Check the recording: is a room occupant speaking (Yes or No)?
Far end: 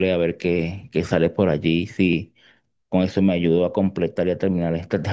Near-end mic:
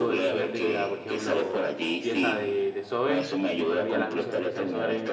Yes